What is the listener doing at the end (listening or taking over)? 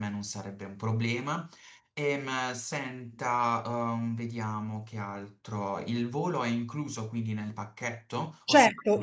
taking over